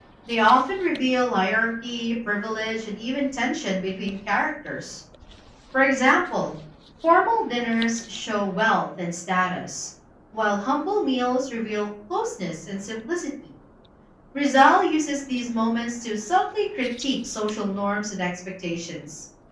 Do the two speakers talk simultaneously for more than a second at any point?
No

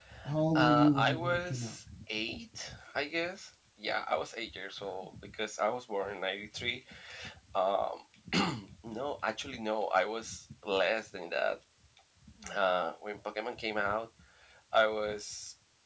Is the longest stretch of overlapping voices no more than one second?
No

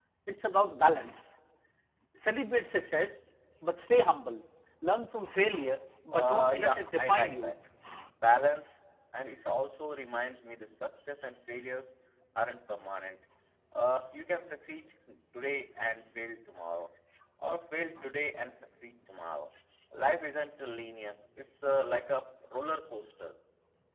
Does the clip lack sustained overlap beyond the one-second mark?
No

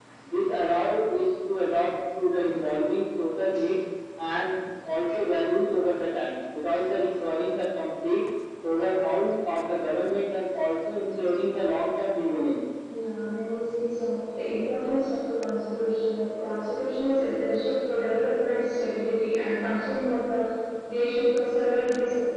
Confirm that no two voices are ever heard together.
Yes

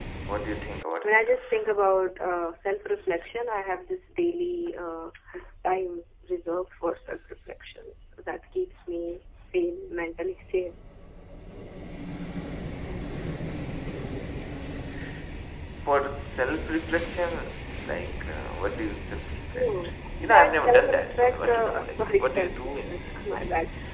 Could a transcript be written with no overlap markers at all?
No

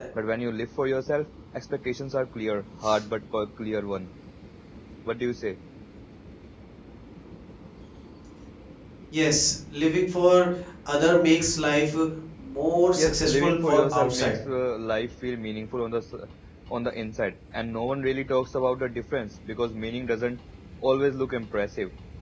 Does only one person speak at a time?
No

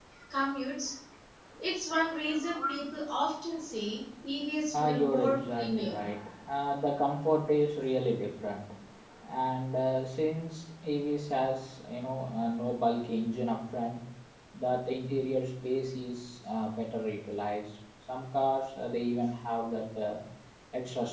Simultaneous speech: Yes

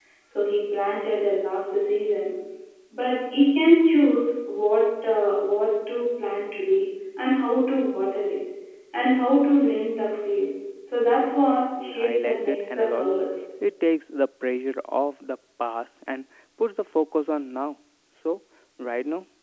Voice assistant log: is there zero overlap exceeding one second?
No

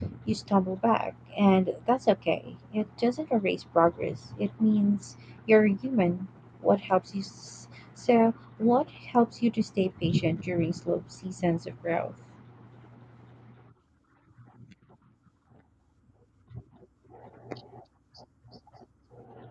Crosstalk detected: No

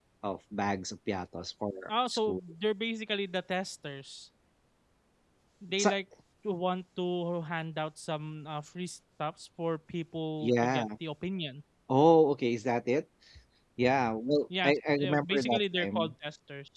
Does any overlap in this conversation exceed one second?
Yes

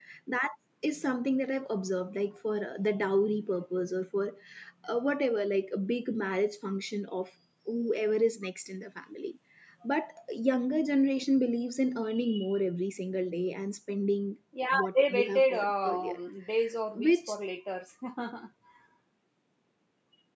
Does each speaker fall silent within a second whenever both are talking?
No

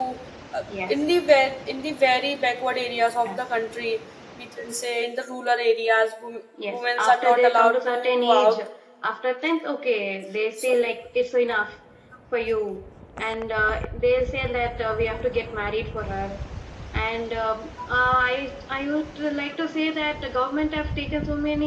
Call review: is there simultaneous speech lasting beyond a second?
Yes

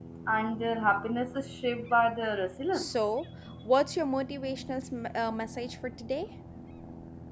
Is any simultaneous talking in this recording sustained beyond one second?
No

